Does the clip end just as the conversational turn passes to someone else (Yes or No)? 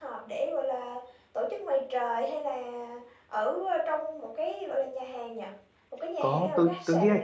Yes